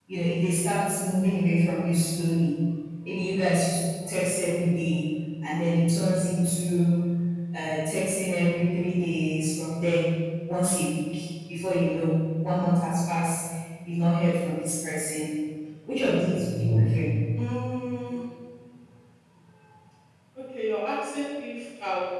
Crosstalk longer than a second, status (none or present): none